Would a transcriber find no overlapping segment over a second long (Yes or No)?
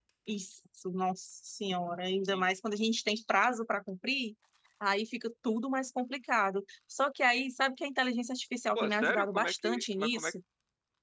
No